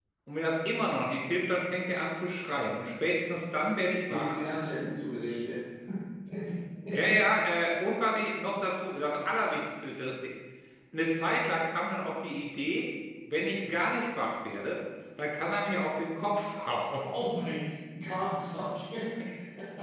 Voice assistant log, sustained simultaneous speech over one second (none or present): none